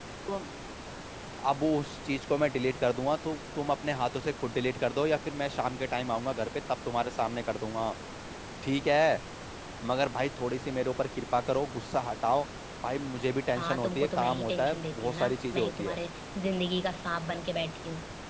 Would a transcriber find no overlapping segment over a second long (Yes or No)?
No